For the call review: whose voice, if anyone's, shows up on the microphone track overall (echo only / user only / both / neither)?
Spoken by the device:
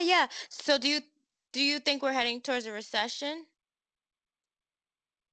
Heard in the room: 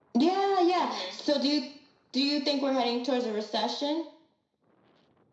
both